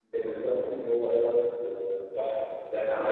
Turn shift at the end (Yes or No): Yes